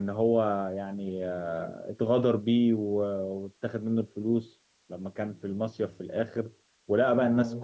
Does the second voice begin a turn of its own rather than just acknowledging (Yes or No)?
No